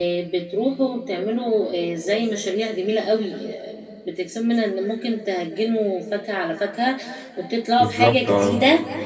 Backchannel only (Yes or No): Yes